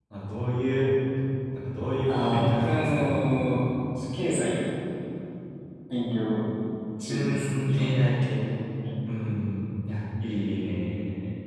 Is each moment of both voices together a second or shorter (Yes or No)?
No